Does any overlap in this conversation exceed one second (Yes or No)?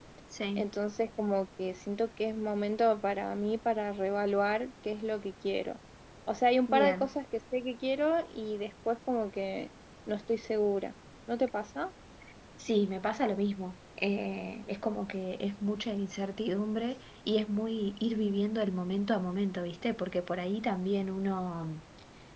No